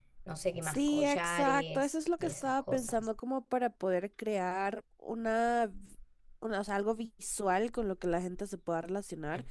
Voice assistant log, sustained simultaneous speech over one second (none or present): present